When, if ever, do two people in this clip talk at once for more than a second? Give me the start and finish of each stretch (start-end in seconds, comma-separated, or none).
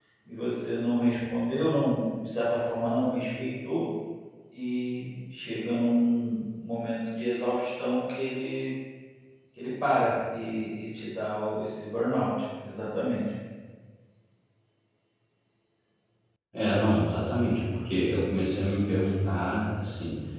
none